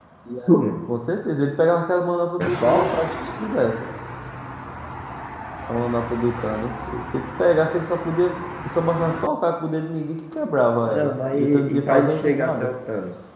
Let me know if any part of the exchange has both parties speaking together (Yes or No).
Yes